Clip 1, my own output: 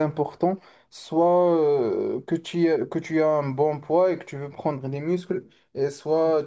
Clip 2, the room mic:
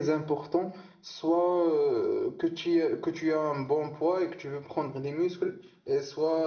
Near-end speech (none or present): none